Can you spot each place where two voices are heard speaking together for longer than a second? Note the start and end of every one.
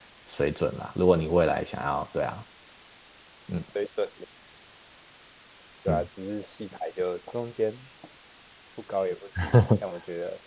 none

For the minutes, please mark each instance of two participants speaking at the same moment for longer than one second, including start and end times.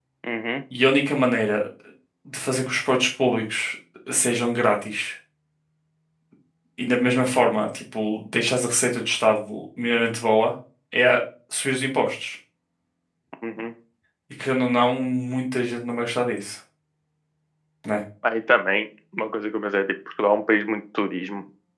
none

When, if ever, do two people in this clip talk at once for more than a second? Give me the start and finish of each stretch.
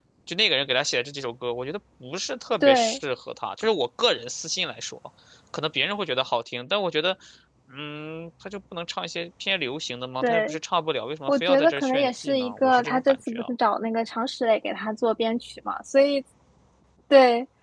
11.3-13.5

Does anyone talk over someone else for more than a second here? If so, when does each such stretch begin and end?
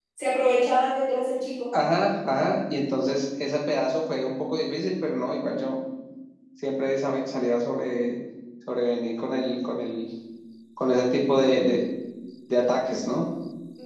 none

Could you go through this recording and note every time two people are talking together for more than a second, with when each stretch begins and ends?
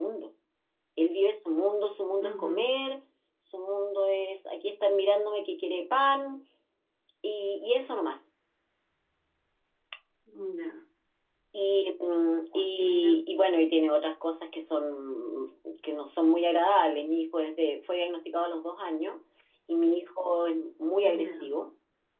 none

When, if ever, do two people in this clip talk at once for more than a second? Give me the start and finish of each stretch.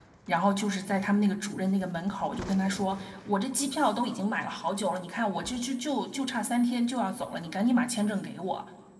none

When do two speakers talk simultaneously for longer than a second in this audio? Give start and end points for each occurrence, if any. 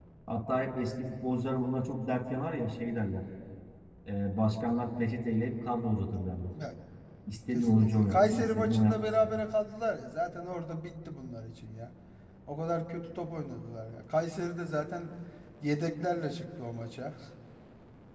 7.5-9.1

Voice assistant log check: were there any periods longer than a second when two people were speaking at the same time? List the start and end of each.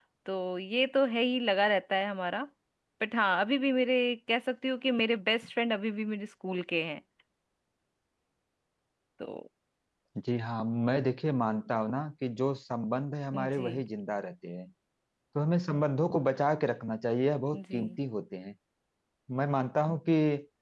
none

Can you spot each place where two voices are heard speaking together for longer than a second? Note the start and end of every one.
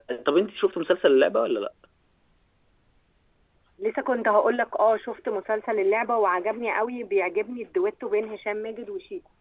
none

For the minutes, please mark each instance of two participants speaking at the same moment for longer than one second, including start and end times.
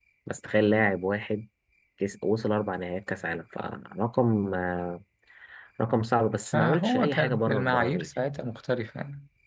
6.5-8.1

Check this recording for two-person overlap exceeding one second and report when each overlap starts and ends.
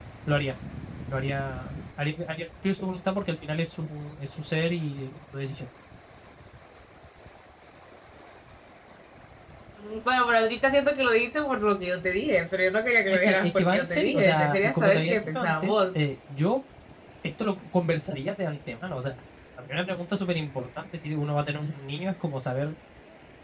13.1-16.0

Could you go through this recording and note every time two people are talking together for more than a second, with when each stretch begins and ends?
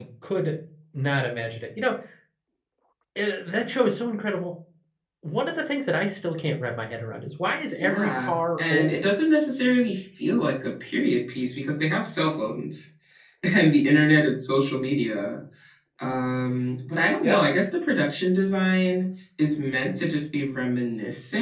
7.8-9.1

